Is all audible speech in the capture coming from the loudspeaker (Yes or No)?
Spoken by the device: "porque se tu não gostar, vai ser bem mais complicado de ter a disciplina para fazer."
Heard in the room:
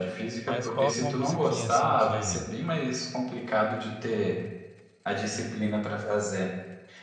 No